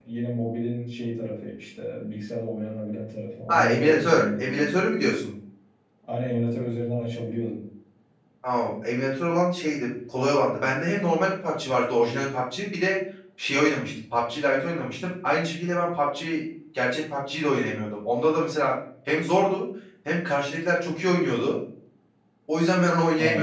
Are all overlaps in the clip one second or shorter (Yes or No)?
No